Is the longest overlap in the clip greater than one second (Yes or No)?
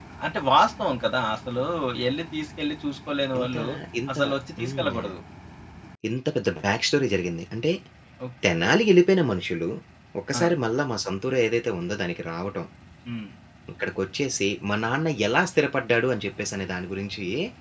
No